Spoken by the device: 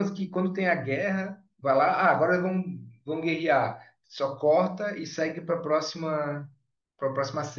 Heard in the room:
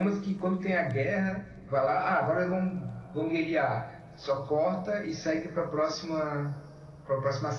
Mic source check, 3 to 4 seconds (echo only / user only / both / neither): echo only